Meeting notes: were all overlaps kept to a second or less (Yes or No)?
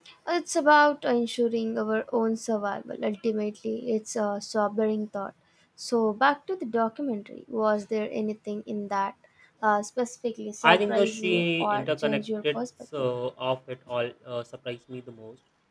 No